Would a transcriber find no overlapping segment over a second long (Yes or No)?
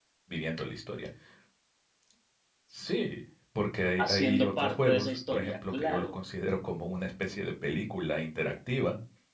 No